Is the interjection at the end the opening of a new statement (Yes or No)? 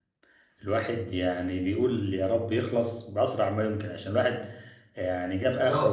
No